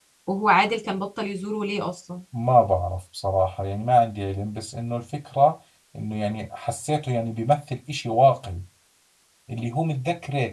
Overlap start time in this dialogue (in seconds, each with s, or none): none